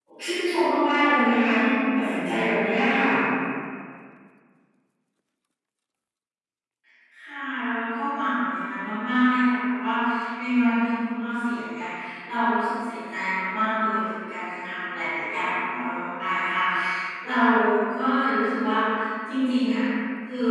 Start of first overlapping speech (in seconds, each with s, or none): none